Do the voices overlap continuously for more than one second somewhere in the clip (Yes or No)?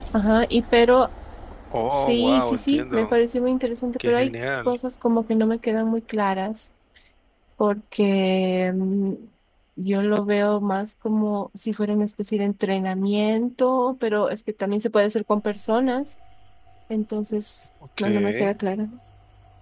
Yes